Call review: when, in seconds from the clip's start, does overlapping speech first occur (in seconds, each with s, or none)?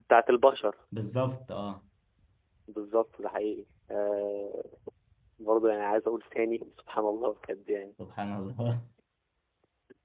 none